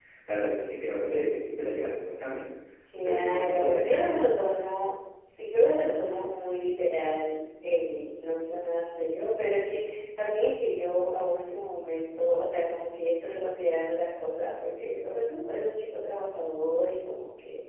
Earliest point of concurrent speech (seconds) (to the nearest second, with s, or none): 3 s